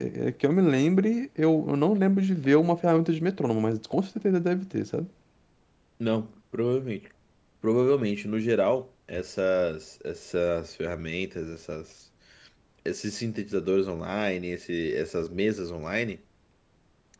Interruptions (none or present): none